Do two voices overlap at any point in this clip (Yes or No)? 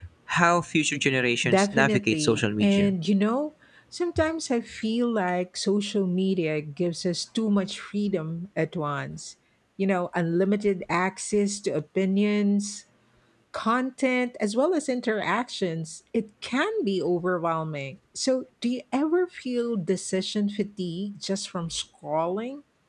Yes